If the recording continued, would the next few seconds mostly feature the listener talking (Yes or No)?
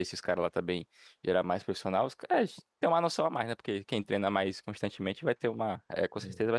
No